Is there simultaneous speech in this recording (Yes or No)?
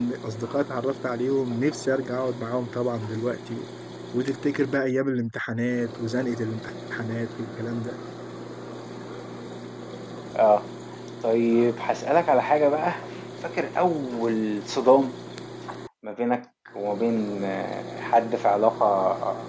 No